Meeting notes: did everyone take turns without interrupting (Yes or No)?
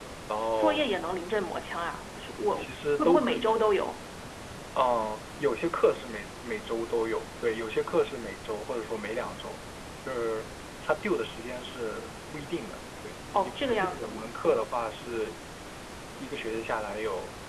No